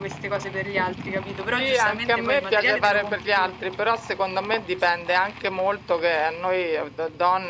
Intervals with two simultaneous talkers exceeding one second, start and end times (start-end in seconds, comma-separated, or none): 1.5-3.5